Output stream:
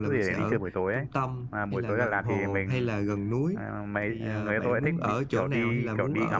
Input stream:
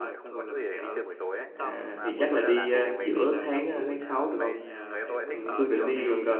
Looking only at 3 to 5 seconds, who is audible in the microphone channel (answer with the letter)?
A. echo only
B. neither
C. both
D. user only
C